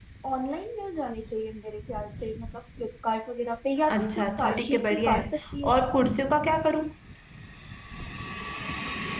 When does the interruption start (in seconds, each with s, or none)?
3.9 s